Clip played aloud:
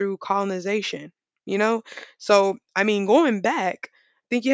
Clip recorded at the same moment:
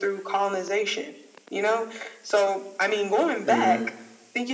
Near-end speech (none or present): present